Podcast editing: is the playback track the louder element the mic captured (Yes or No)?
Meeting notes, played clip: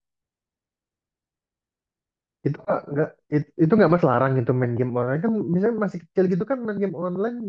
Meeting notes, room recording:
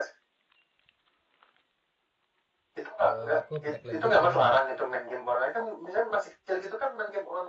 Yes